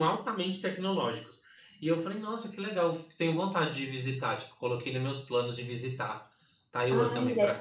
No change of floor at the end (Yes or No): No